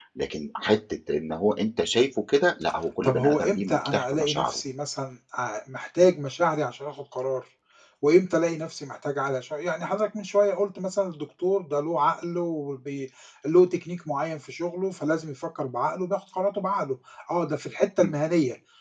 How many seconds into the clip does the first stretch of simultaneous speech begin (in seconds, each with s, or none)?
3.0 s